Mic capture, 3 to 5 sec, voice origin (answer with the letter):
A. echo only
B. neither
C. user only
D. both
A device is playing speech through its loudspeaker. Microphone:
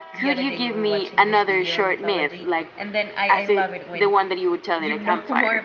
D